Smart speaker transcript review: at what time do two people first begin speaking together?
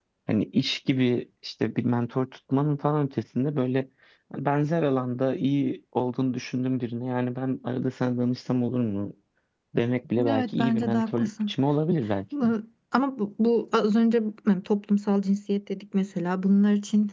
10.3 s

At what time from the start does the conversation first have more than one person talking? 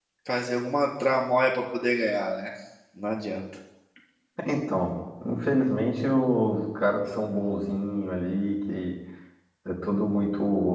none

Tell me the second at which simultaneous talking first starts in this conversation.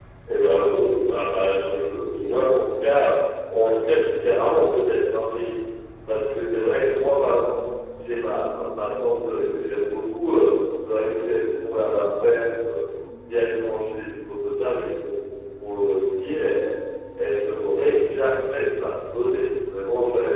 none

